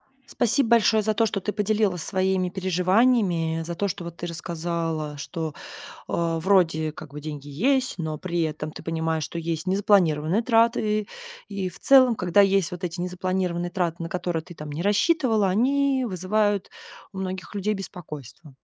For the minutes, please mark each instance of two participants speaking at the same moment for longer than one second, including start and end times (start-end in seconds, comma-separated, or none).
none